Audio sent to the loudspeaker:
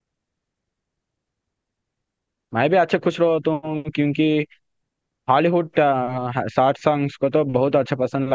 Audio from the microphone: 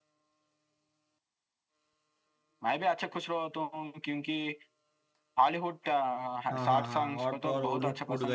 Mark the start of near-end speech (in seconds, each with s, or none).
6.5 s